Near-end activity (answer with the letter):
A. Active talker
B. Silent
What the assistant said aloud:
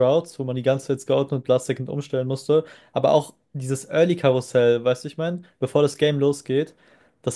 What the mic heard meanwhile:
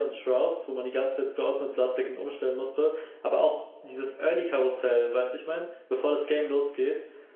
B